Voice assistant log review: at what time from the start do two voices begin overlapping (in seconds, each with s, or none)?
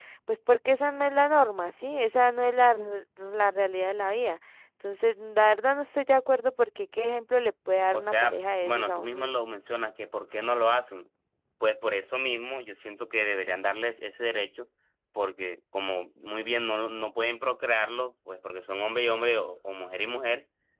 7.9 s